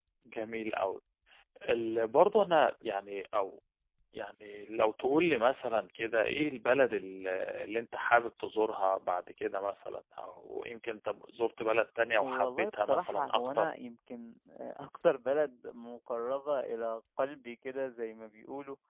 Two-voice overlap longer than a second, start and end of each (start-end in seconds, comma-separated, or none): 12.2-13.7